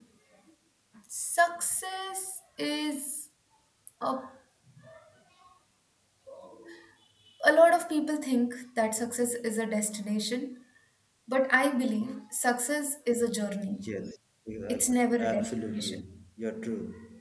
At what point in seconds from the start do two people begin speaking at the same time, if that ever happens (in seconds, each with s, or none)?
14.7 s